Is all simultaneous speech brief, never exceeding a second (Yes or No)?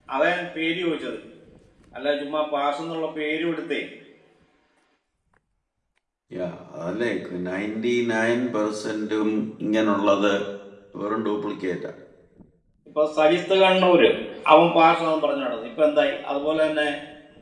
Yes